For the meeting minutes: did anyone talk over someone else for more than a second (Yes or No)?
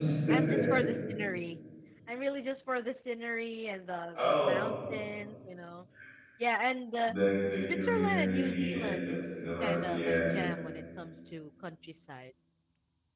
Yes